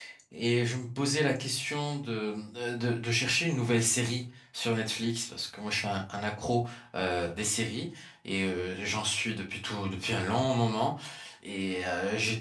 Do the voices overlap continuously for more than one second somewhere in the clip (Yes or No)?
No